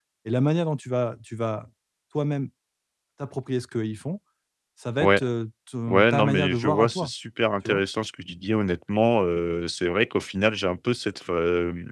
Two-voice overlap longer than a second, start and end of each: 5.9-7.1

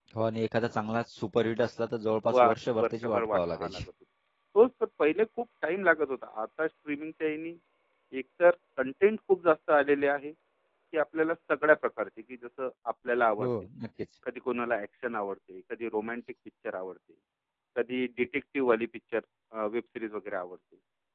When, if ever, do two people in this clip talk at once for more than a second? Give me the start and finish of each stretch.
2.3-3.8

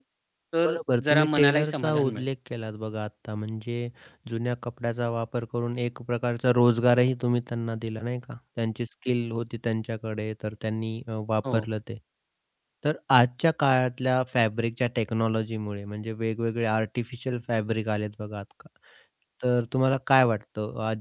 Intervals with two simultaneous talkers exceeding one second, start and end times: 0.6-2.2

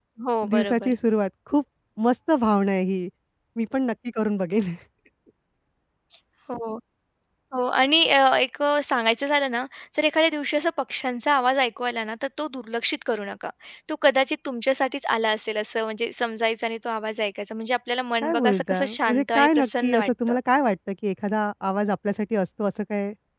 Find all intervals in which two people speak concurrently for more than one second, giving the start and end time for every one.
18.2-20.3

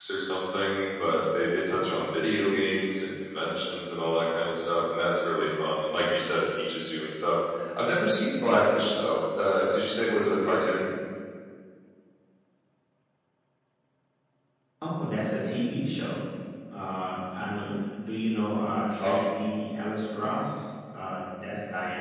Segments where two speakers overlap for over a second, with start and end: none

